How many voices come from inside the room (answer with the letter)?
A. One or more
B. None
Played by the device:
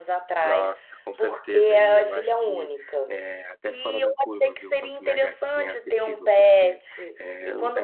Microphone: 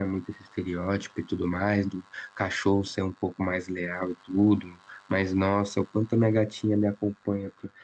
A